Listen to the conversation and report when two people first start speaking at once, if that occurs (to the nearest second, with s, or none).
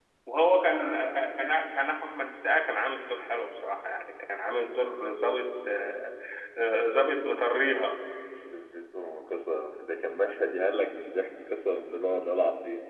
none